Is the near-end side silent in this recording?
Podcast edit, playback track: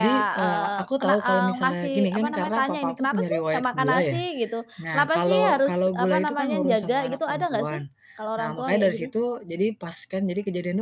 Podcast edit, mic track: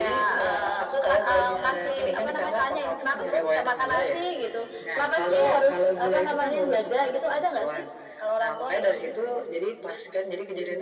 Yes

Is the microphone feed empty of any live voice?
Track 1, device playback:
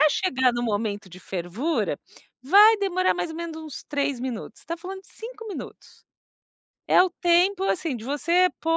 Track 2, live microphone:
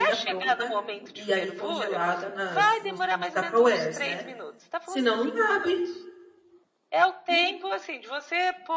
No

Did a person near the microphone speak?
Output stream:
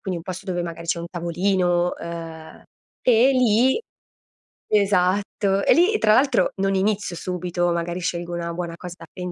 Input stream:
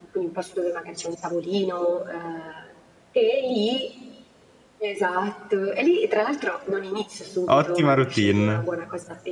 Yes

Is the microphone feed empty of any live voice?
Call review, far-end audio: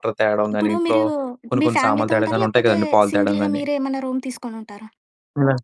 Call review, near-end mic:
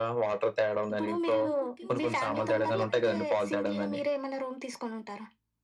No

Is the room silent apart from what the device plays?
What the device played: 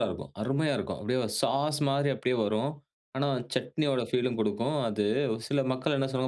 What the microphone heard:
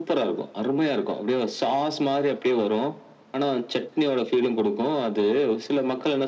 Yes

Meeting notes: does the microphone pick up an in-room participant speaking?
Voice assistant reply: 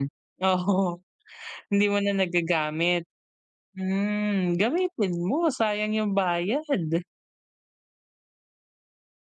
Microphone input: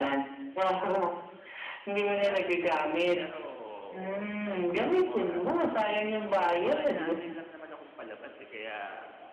Yes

